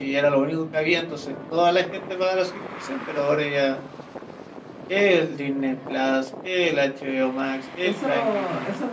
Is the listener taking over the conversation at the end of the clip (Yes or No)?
Yes